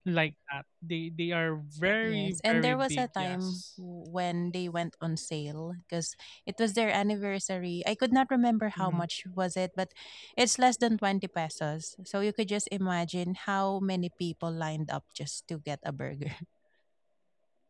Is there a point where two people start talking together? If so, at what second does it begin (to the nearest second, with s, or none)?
2 s